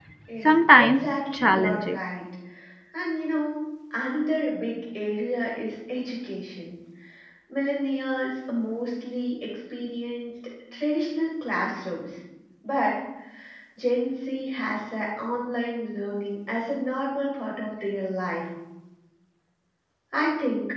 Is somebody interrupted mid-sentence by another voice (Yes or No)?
Yes